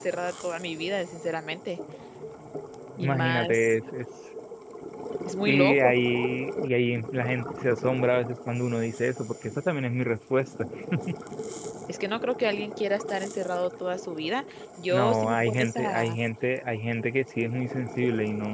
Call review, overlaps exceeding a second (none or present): present